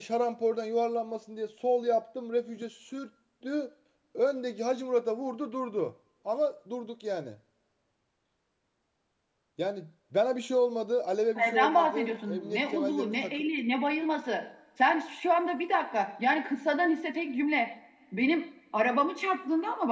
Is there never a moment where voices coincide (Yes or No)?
No